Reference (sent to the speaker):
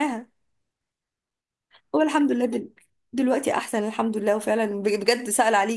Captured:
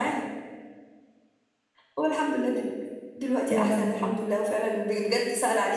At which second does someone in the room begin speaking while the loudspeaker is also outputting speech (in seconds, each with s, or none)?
3.5 s